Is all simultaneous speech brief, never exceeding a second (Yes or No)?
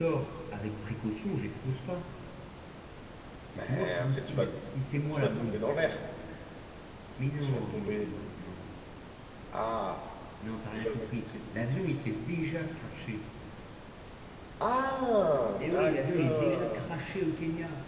No